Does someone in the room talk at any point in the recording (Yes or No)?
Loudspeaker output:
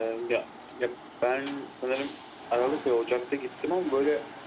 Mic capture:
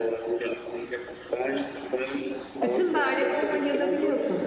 Yes